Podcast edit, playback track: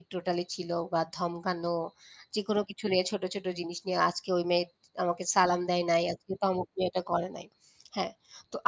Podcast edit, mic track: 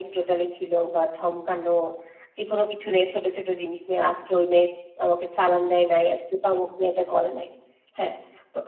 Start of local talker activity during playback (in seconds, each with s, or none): none